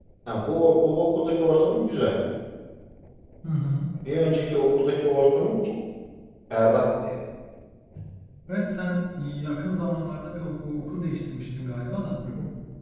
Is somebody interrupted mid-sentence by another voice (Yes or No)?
No